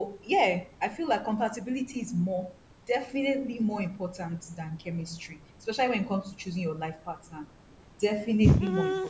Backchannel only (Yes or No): No